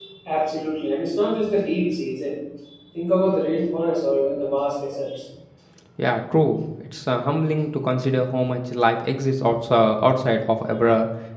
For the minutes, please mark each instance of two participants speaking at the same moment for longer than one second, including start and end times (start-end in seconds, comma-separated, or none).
none